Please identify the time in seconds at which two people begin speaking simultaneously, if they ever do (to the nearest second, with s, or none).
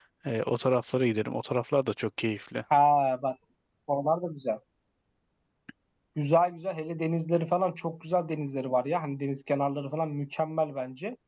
none